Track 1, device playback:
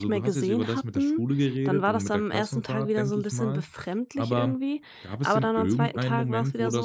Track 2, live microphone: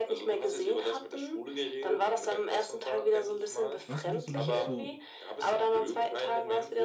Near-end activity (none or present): present